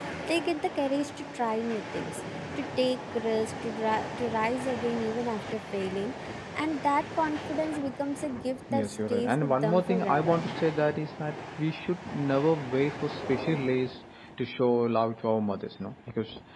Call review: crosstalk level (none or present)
present